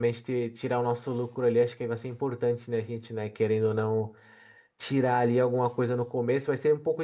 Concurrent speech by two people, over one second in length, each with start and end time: none

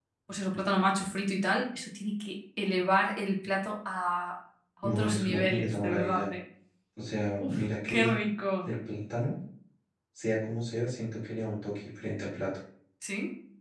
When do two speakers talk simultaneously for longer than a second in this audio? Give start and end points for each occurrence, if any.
4.8-6.2

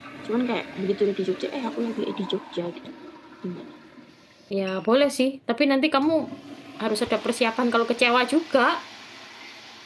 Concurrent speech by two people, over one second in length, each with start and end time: none

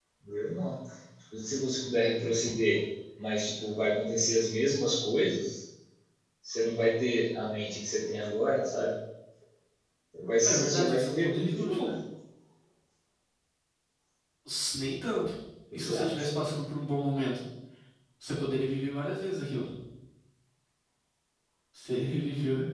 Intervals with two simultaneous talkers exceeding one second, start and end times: 10.4-11.9

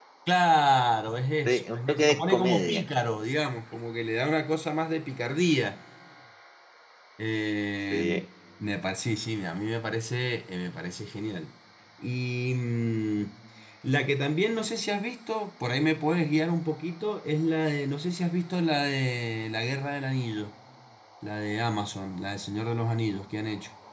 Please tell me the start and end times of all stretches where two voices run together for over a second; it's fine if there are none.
1.4-2.8

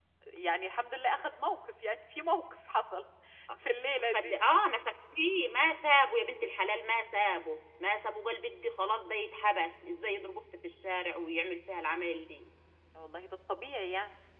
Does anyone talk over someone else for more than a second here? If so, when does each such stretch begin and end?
none

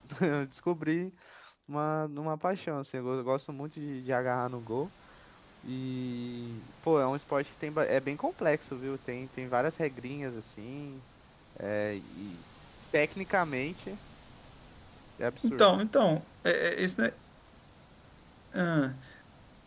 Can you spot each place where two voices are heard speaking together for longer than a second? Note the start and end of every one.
none

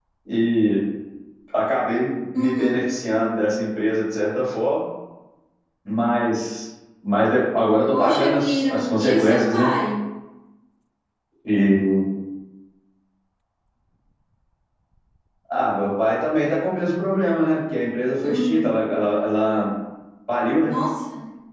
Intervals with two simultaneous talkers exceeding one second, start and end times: 7.9-9.7

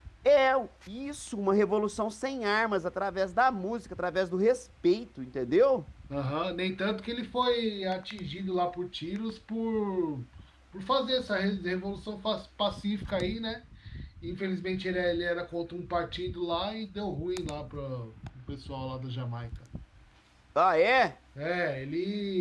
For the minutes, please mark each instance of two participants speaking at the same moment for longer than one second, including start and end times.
none

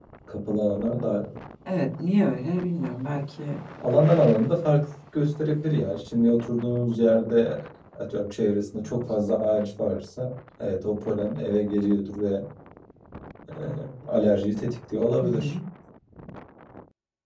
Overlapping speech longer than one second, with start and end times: none

